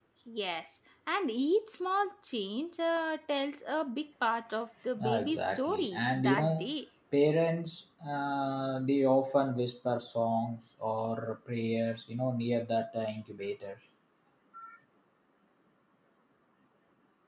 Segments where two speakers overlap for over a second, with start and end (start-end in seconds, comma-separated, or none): 5.0-6.7